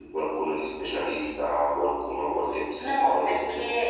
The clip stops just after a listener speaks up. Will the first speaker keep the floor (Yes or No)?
No